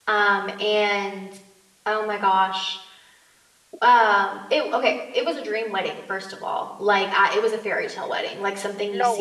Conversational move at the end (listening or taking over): listening